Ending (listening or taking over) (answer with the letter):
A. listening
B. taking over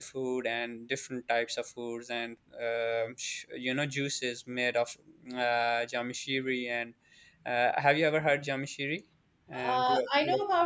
B